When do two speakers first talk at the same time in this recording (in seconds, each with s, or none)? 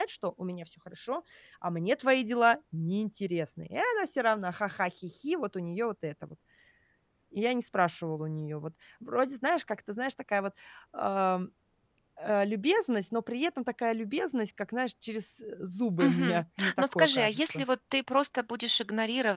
16.0 s